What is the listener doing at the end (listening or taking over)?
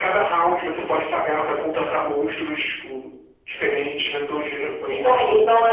taking over